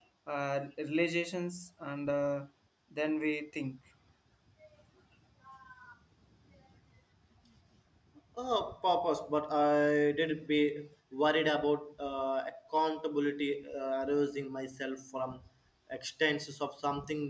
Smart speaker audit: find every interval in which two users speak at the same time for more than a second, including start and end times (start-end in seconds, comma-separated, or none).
none